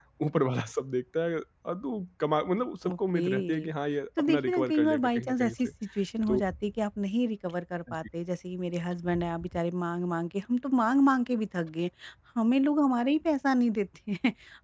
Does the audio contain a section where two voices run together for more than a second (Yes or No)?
Yes